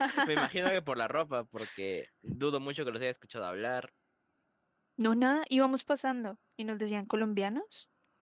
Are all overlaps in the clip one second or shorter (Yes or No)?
Yes